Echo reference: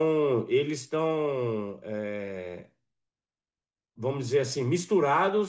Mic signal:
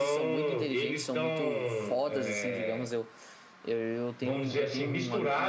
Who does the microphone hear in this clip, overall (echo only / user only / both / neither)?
both